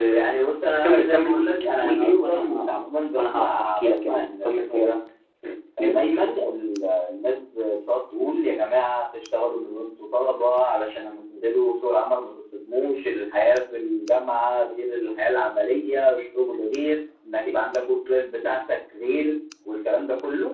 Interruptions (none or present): present